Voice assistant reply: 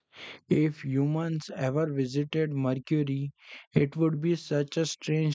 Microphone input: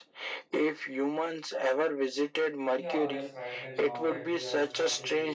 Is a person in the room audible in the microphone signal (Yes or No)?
Yes